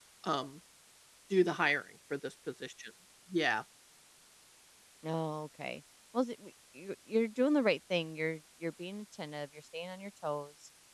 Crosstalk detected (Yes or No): No